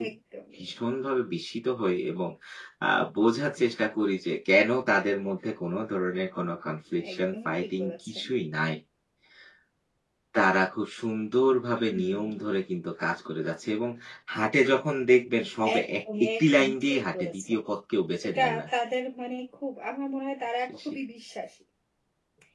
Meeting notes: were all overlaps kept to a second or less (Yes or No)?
No